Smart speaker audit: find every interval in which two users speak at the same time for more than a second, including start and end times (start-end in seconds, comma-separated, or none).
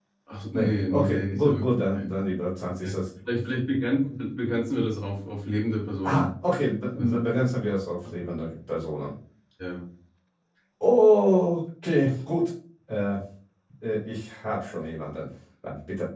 0.5-2.0